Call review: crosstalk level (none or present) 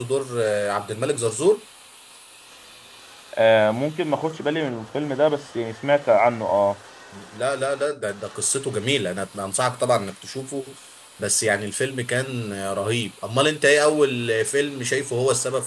none